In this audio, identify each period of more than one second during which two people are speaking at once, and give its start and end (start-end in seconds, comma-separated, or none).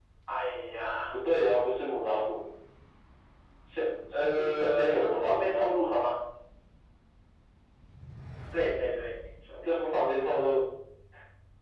4.1-5.7